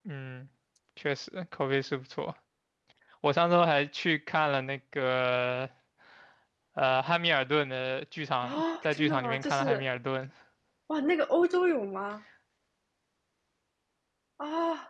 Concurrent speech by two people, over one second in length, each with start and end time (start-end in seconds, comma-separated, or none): 8.4-9.8